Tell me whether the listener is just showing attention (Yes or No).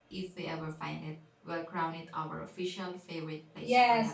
No